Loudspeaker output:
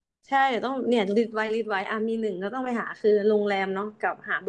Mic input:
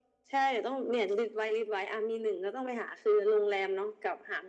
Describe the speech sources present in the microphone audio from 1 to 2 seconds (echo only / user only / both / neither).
echo only